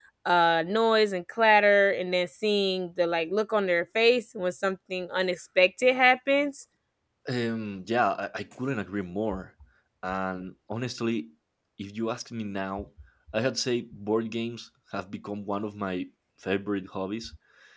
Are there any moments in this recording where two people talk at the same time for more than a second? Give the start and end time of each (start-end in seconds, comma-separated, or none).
none